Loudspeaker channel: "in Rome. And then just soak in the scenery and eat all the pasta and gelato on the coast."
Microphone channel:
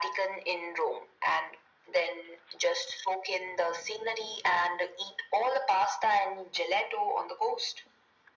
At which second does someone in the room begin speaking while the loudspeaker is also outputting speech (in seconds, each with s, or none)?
none